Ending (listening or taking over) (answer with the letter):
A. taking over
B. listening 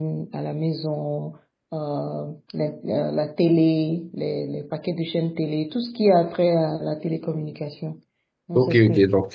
A